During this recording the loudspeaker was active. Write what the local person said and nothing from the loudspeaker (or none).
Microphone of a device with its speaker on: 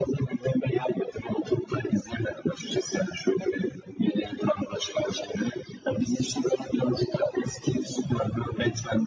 none